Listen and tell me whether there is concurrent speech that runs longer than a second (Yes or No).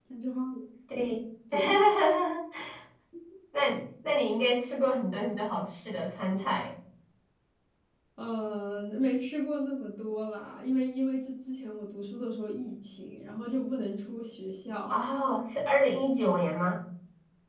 No